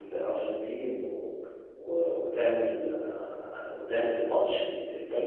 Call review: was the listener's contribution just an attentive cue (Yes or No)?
No